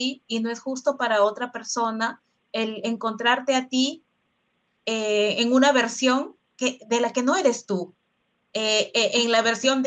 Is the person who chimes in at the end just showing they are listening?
Yes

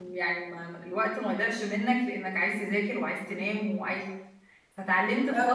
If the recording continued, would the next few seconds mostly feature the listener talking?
No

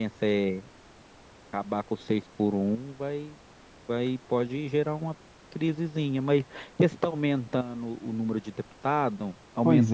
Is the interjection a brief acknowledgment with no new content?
No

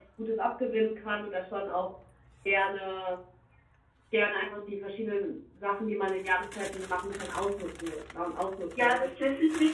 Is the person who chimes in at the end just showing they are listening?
No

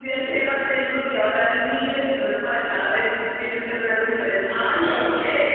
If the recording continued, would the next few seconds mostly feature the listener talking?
Yes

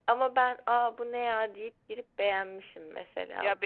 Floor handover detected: Yes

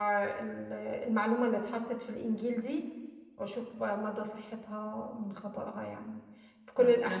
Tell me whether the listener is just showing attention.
Yes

